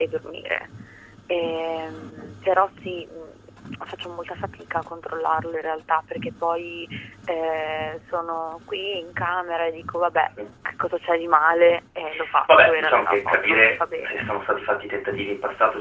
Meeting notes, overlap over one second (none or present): present